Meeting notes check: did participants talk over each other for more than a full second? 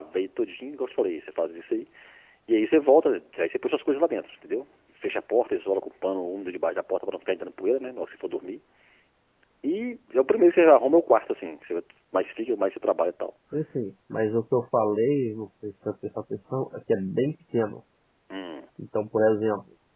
No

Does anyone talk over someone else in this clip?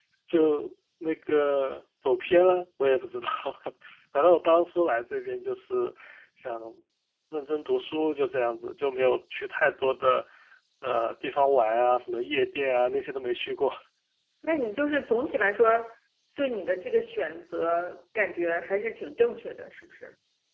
No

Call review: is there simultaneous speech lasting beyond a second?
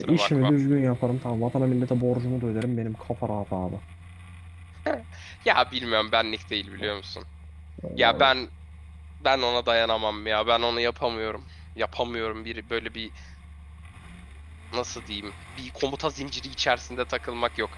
No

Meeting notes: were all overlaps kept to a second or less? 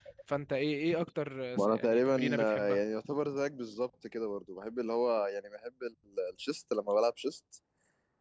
No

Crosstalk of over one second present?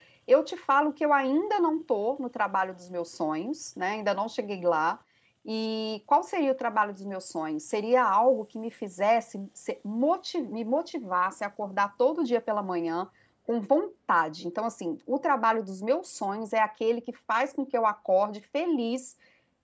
No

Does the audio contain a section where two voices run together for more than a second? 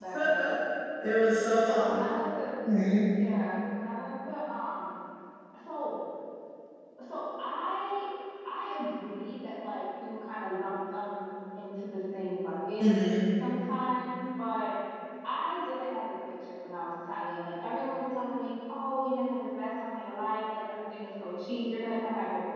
No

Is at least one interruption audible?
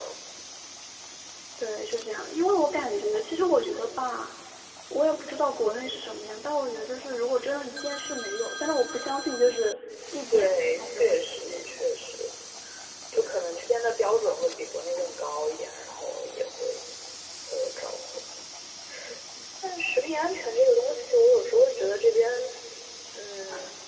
Yes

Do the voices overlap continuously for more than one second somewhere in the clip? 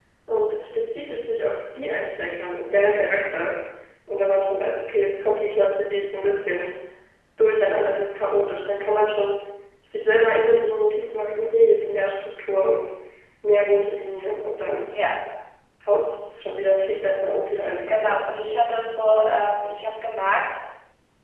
No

